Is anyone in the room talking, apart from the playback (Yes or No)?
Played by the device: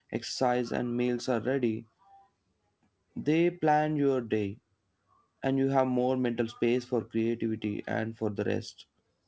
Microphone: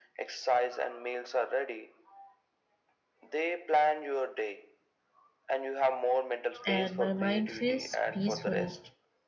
Yes